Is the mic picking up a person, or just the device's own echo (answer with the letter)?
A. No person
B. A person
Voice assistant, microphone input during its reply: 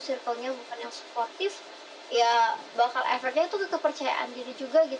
A